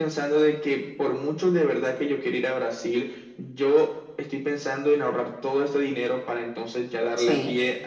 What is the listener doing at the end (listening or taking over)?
taking over